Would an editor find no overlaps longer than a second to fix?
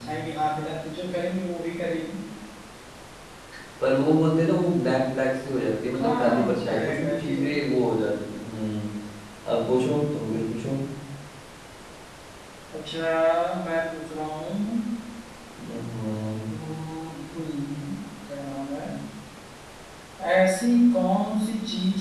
No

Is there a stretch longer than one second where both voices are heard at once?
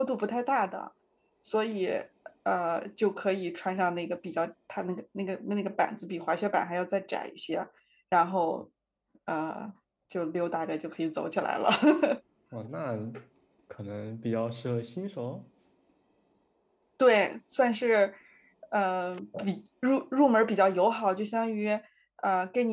No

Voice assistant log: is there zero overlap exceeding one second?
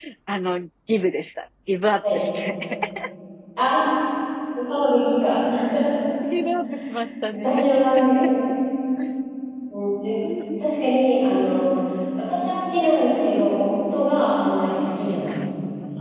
Yes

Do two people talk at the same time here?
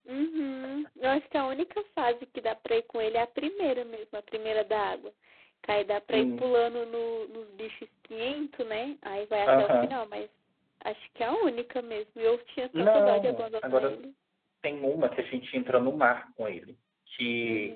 Yes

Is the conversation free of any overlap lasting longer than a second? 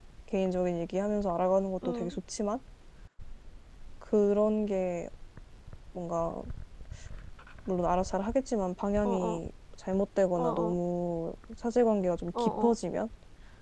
Yes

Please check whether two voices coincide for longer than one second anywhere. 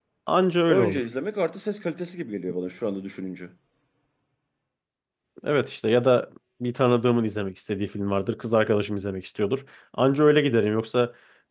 No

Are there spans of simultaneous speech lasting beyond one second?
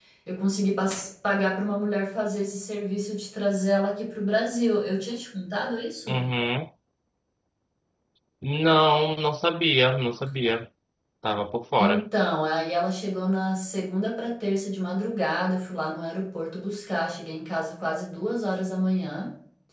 No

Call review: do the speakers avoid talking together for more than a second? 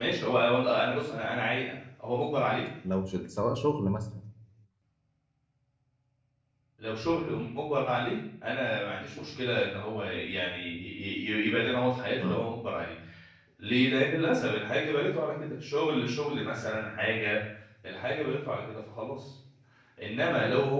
Yes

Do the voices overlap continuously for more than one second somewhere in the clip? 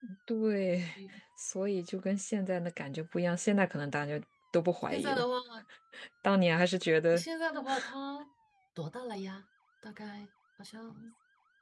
No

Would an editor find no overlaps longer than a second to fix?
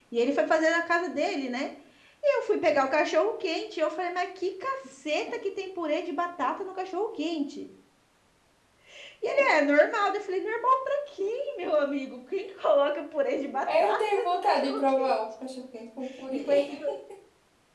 No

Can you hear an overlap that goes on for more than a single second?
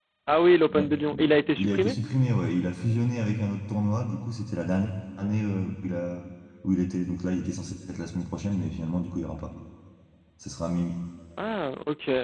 Yes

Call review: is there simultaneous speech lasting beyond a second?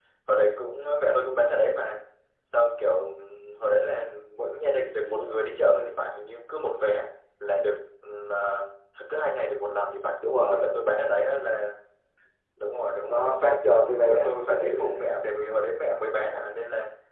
Yes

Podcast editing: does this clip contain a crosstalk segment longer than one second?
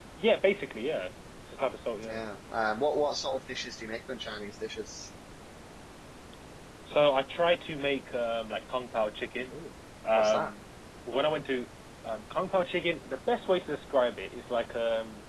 No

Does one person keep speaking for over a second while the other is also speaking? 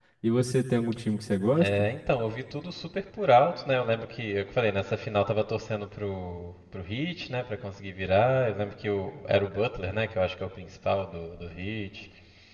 No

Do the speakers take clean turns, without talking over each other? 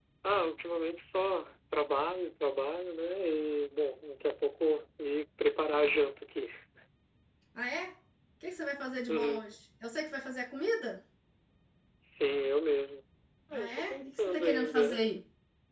No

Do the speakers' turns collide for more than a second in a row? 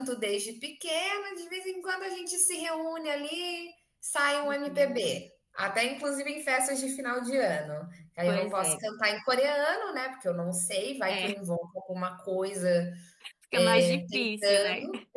Yes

